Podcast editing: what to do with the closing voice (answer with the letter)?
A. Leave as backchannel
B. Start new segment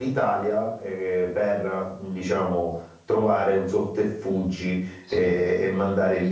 A